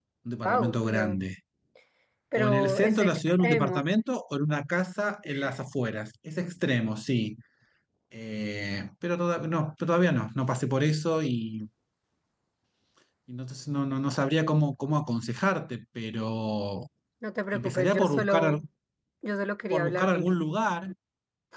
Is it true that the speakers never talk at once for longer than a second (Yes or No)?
No